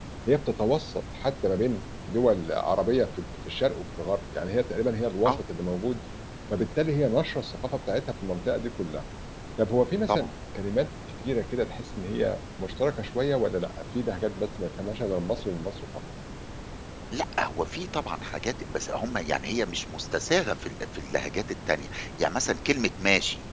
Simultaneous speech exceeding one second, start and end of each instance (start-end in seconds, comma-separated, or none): none